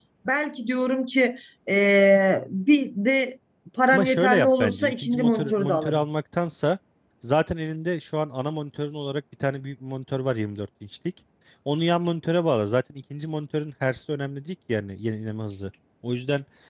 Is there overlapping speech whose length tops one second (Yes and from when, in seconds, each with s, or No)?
Yes, from 3.9 s